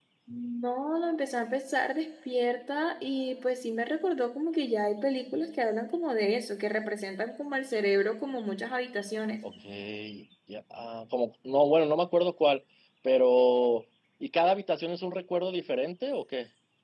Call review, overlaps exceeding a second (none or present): none